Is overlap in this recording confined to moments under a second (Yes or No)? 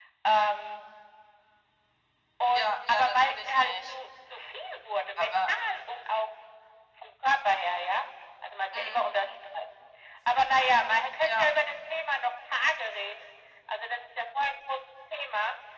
No